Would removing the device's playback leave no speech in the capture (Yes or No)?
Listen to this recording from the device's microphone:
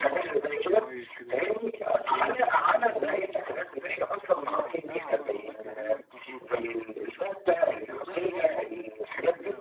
No